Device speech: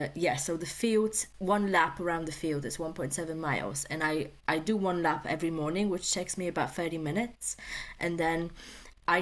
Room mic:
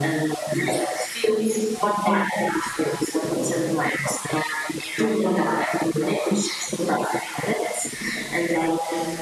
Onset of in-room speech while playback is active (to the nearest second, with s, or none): none